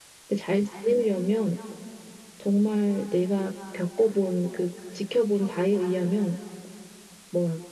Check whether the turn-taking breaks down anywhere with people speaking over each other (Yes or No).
No